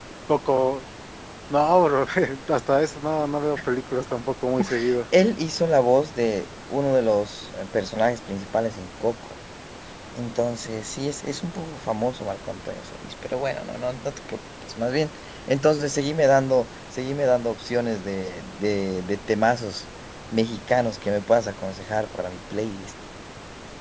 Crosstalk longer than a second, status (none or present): none